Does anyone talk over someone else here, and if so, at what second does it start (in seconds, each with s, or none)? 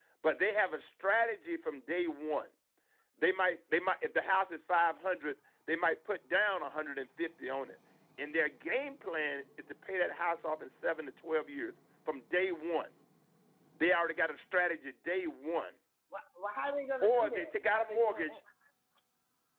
17.0 s